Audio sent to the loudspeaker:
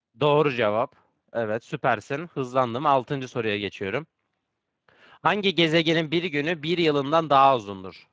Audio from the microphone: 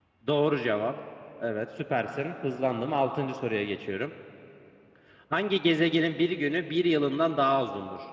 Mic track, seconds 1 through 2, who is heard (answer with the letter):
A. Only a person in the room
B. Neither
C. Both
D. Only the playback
D